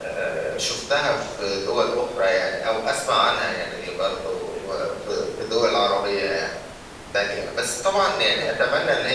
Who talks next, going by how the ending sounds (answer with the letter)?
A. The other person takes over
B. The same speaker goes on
B